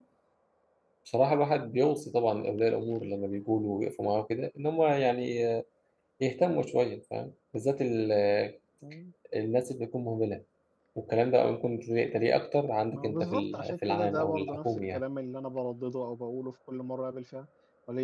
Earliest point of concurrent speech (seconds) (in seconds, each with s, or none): 12.9 s